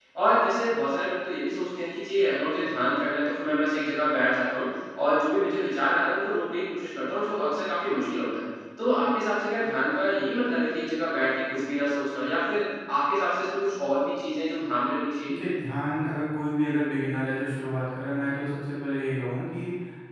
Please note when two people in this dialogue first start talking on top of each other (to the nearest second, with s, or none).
none